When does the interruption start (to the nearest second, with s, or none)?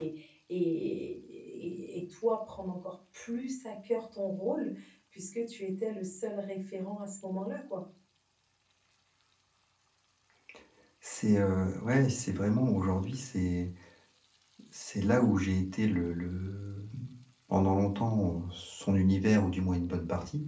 none